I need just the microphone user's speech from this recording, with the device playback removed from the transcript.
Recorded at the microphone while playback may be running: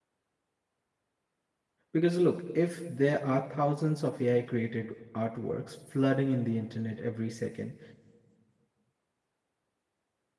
Because look, if there are thousands of AI created artworks flooding in the internet every second,

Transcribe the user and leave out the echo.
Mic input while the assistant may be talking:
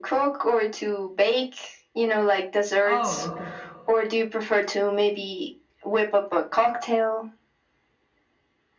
oh, okay.

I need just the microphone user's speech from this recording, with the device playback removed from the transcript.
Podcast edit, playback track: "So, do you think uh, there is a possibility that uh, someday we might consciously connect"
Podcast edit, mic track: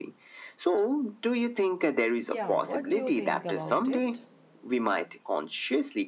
yeah what do you think about it

